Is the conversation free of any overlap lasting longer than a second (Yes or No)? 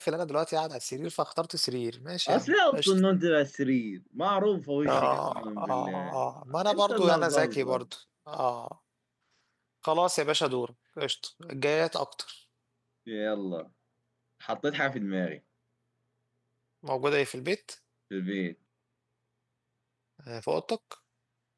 No